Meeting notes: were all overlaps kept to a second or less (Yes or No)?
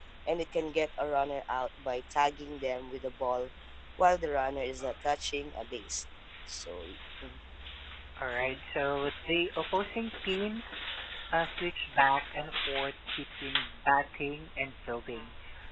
Yes